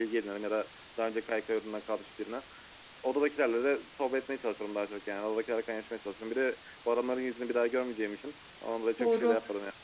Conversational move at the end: taking over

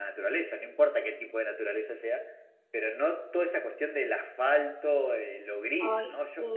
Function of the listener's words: listening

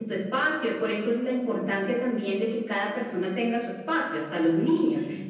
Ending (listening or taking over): listening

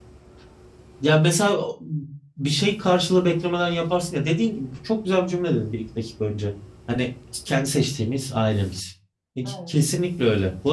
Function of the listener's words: listening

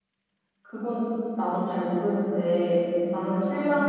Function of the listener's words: listening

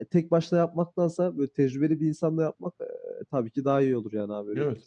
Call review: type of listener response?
taking over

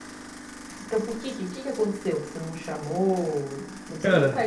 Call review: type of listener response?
listening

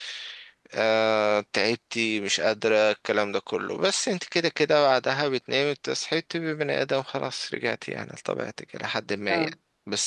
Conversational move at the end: listening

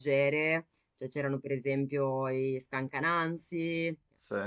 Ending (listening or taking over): listening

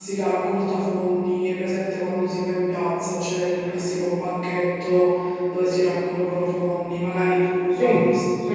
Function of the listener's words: listening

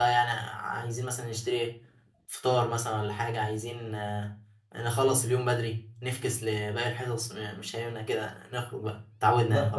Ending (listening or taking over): taking over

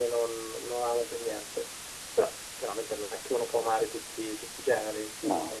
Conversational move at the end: listening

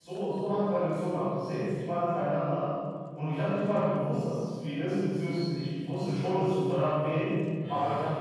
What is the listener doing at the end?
listening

